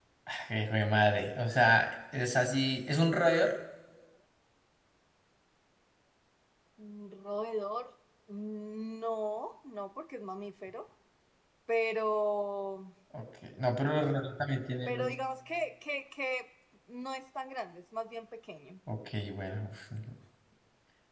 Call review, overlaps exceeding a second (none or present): none